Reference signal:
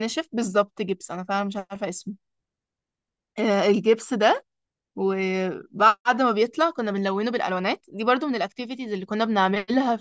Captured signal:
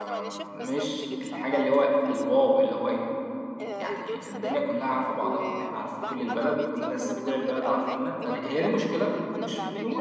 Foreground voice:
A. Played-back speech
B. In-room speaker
B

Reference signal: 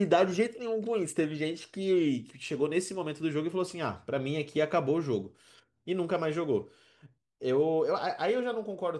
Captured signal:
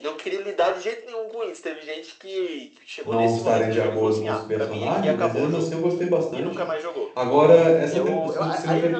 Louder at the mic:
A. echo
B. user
B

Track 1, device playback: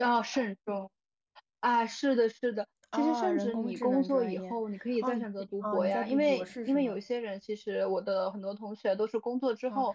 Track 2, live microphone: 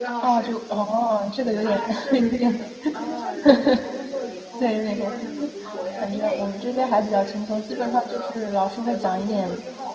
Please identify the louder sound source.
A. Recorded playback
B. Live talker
B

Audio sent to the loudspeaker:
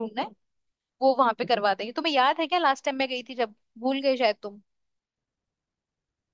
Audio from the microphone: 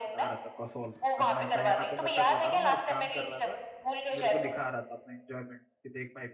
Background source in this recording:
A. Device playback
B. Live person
B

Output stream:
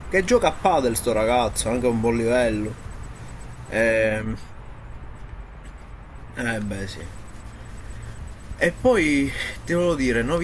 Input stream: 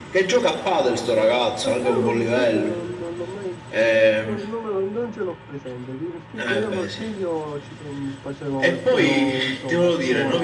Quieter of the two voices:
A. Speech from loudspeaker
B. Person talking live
B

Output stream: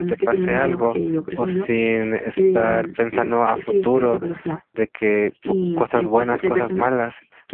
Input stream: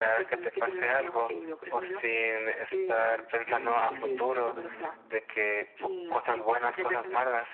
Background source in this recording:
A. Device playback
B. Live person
B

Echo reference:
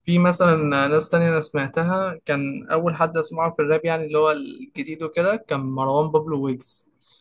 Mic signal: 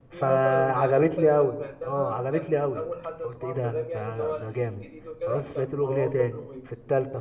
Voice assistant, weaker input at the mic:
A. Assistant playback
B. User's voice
A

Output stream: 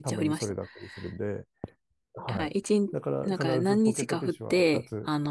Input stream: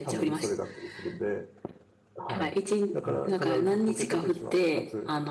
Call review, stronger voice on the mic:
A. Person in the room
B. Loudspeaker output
B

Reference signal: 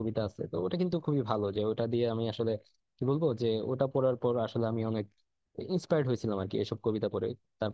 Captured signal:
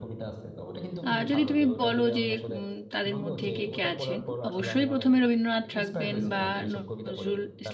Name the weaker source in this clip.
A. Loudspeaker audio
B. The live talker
A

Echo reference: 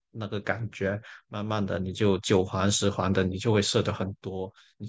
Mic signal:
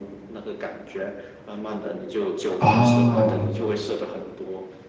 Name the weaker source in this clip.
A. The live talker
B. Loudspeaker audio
B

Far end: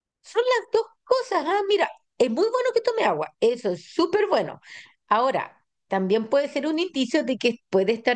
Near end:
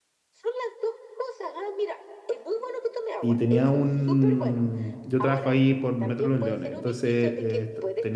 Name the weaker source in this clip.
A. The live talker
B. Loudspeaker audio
B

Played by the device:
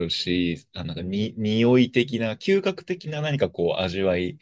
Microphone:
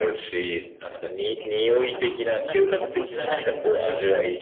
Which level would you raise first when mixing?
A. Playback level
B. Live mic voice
B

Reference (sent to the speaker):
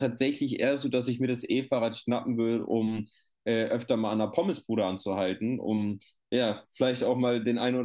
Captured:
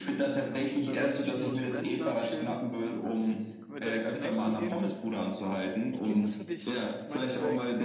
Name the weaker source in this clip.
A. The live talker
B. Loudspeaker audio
A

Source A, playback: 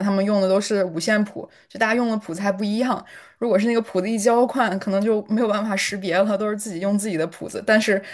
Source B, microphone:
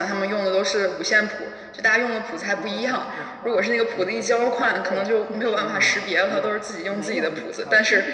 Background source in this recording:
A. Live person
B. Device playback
A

